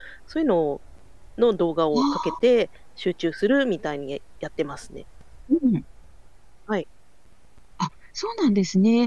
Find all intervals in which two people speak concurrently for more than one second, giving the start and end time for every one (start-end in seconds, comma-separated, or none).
none